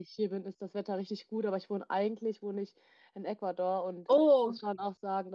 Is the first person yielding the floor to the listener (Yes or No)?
No